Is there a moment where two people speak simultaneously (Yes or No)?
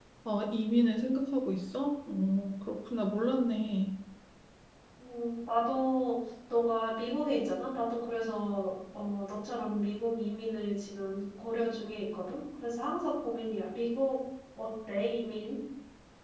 No